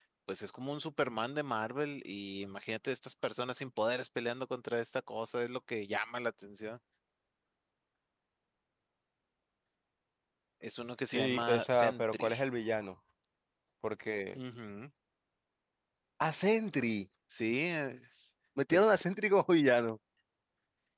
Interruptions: present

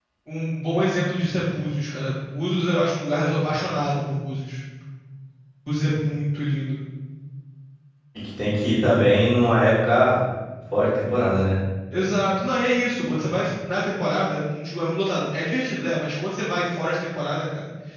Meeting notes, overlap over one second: none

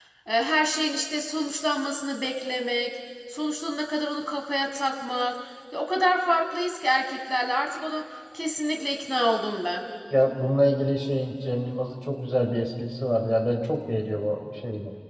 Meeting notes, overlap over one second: none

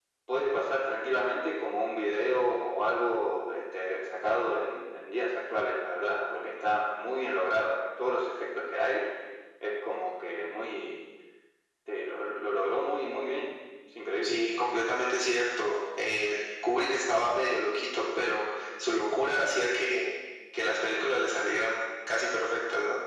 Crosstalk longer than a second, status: none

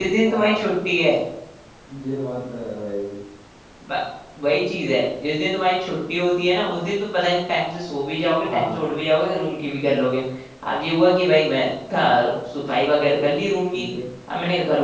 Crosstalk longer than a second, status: none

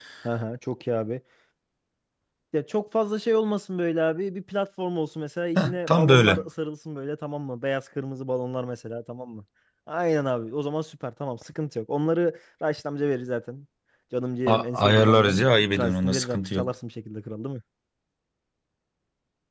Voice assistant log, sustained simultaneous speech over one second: present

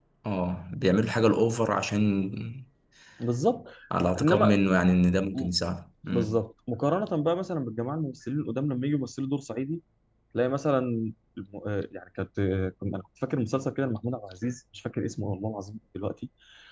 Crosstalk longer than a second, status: none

